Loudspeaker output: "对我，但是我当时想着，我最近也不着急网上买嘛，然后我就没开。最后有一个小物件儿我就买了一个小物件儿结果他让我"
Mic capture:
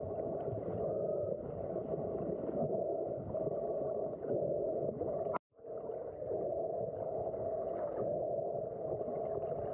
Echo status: none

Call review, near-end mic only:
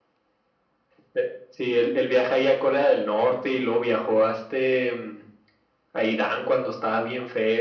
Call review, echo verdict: present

